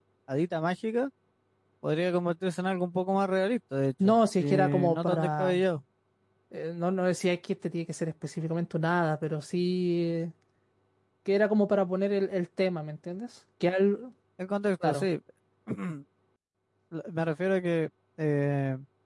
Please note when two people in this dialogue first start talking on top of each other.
4 s

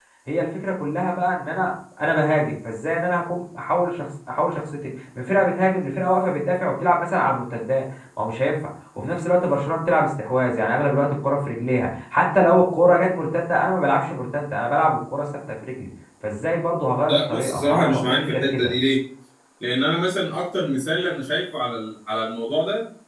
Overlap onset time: 17 s

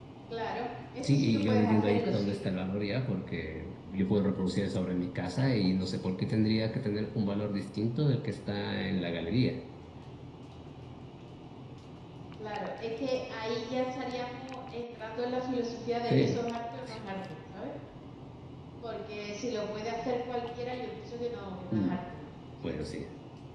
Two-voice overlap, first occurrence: 1 s

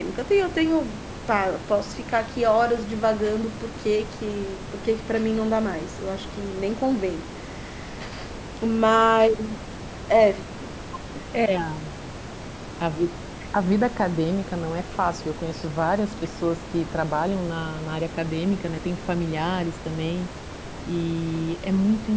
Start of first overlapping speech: none

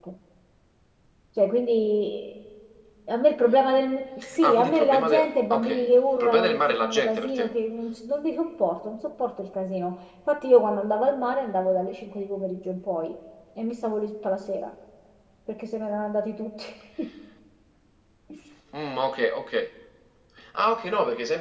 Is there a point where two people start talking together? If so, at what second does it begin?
4 s

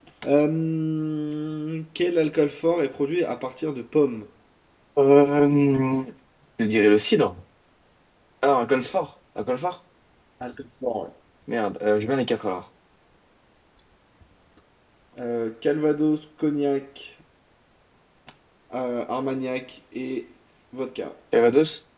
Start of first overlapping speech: none

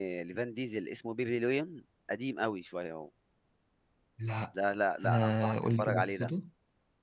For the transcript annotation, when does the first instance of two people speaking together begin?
5 s

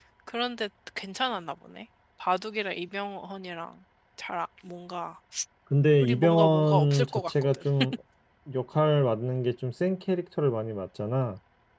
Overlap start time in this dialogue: 6 s

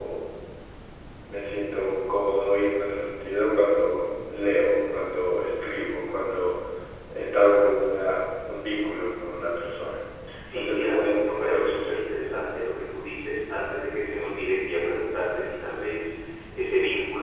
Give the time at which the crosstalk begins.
11 s

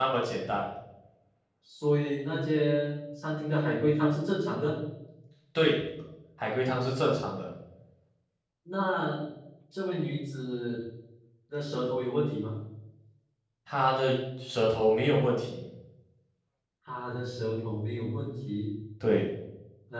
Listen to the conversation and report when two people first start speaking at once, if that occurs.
none

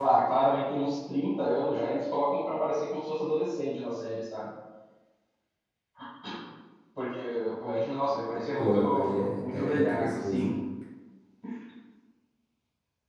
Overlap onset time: 9 s

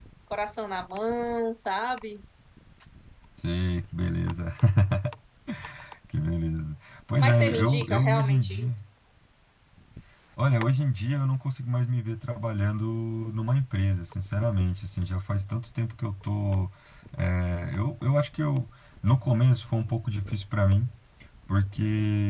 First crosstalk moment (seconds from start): 7 s

